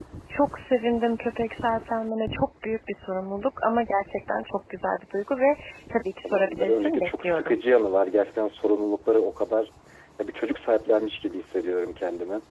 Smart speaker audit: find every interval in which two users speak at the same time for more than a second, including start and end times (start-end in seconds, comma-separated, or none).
6.2-7.6